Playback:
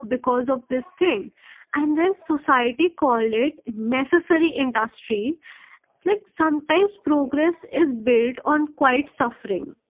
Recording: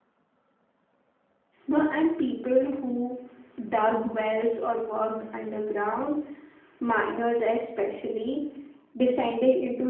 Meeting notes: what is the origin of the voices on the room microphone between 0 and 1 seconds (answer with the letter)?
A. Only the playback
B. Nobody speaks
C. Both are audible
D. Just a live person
B